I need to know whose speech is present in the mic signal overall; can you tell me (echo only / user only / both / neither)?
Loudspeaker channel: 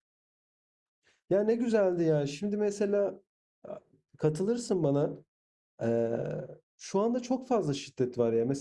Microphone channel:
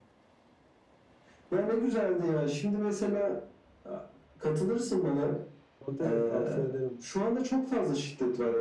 both